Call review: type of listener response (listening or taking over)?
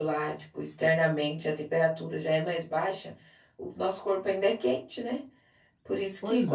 listening